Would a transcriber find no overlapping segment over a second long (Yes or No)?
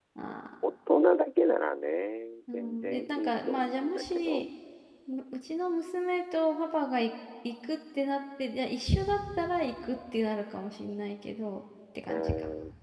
No